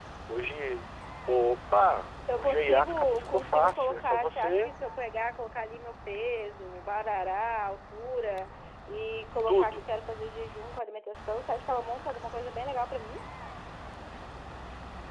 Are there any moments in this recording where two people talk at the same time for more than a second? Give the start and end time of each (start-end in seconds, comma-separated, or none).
2.3-4.7